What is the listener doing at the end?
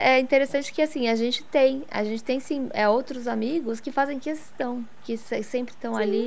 listening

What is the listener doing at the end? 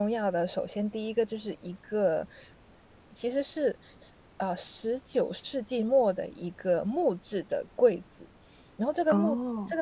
listening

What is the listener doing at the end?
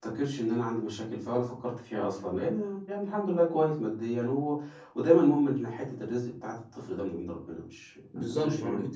taking over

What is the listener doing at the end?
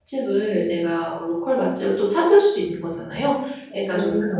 listening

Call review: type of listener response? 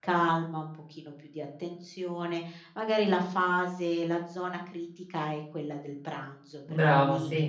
listening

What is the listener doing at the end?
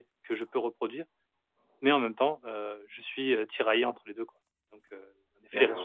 taking over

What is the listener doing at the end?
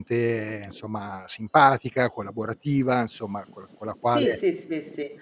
taking over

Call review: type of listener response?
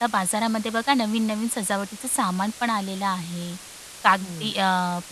listening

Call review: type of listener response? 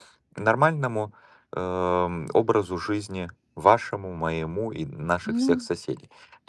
listening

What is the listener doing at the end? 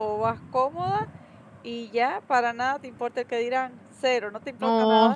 taking over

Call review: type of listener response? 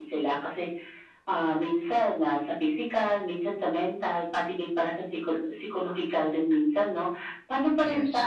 listening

